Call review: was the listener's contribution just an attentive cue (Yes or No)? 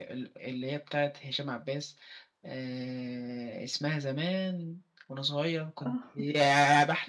Yes